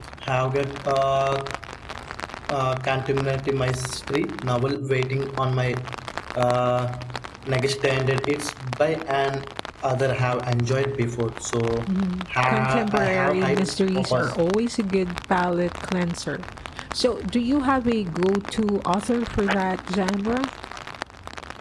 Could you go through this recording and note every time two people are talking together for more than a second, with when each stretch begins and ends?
12.5-14.4

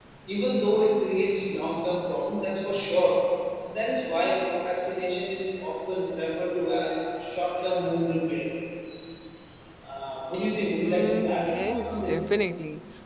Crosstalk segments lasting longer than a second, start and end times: 10.8-12.2

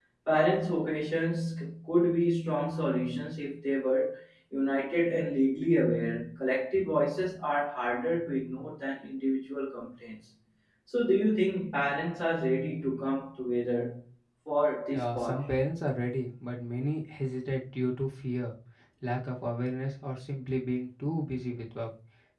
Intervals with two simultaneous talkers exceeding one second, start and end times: none

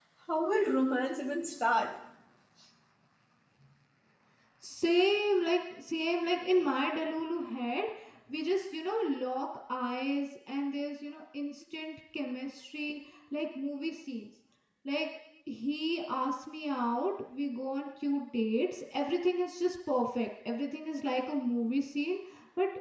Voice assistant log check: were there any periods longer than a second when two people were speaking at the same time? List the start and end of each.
none

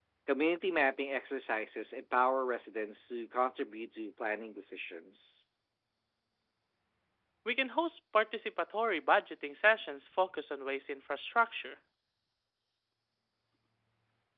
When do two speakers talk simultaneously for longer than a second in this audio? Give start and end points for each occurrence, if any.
none

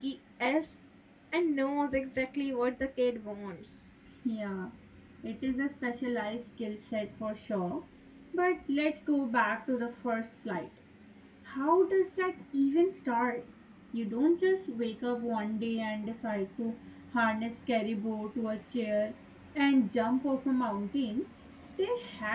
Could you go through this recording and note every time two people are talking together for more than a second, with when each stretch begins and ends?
none

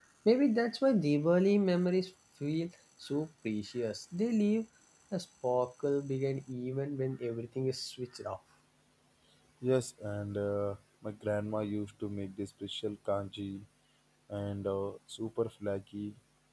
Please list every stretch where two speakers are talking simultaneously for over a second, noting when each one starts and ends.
none

